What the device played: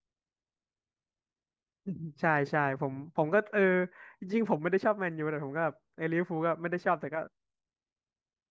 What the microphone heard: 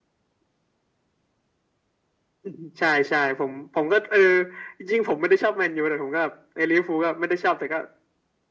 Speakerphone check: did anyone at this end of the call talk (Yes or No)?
No